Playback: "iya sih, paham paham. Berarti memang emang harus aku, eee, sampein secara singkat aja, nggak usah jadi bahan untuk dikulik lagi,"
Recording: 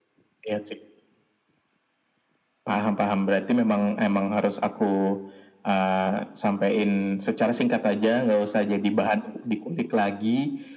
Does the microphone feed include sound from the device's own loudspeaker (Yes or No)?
Yes